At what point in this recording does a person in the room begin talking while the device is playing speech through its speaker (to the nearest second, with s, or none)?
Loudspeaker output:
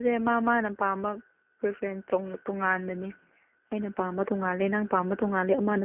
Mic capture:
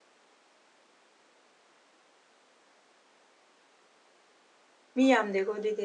5 s